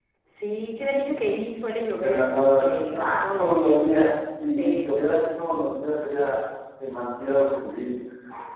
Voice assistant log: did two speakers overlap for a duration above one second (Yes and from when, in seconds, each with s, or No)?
Yes, from 2.0 s